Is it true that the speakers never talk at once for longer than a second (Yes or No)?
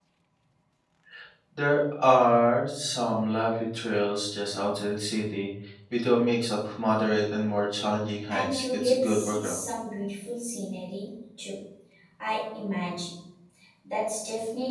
No